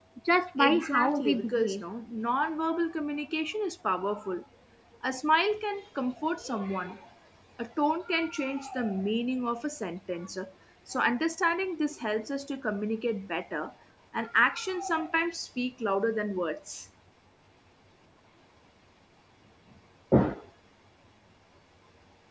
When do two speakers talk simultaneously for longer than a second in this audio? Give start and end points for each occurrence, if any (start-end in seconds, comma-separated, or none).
0.6-1.8